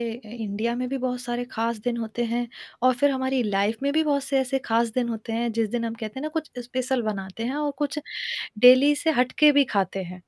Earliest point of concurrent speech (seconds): none

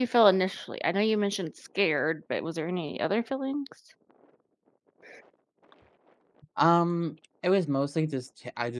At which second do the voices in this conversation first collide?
none

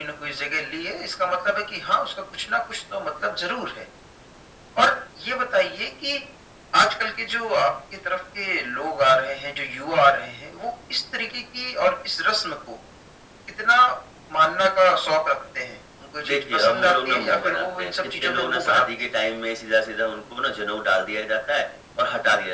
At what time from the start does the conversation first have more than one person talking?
16.2 s

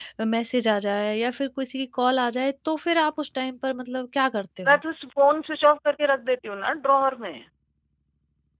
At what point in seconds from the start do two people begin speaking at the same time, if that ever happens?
none

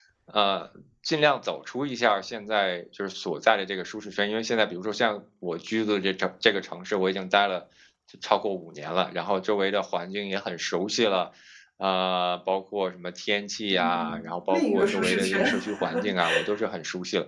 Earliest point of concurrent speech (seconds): 13.7 s

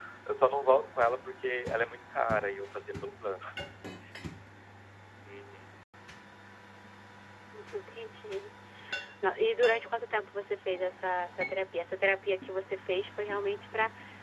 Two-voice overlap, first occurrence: none

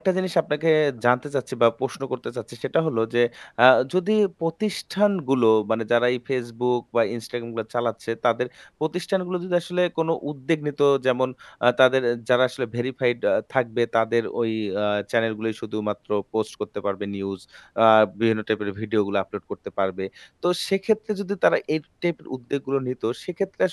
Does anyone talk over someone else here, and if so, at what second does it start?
none

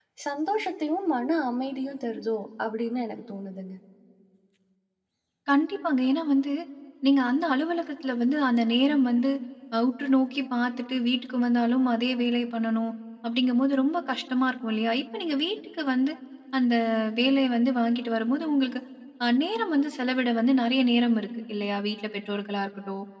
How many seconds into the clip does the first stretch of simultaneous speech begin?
none

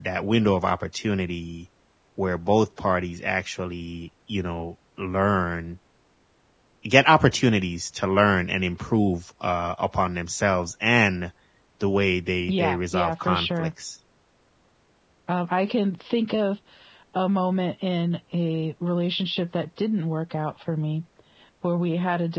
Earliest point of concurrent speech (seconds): 12.5 s

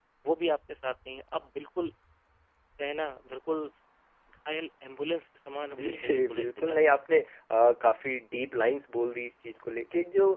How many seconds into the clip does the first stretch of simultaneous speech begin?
5.7 s

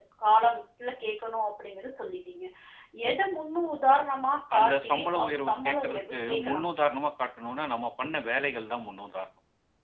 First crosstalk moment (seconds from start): 4.5 s

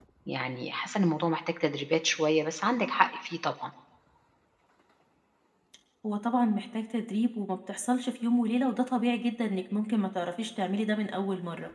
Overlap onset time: none

